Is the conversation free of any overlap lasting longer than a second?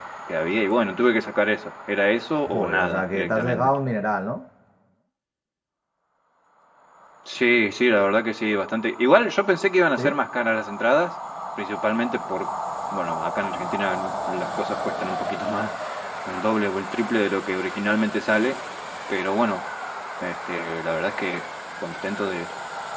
No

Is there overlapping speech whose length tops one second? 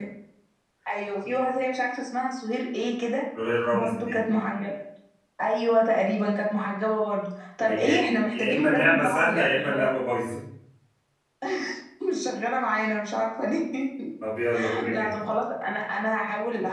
Yes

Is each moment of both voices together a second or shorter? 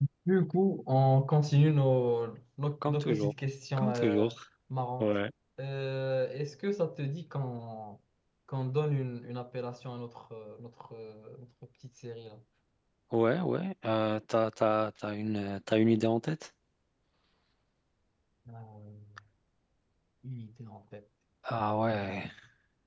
Yes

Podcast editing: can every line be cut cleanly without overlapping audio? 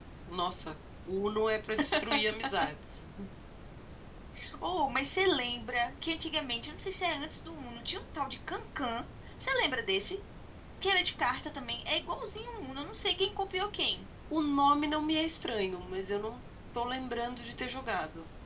Yes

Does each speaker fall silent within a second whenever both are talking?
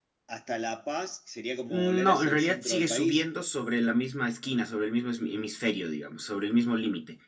No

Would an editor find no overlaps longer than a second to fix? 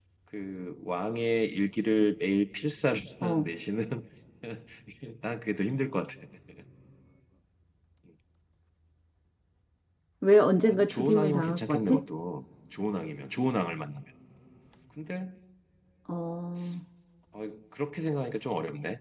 No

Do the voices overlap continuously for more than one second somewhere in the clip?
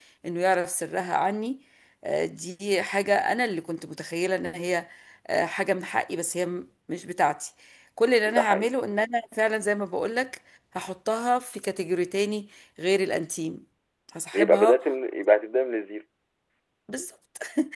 No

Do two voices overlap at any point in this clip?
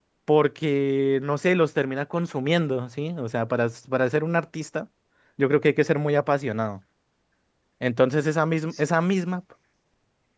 No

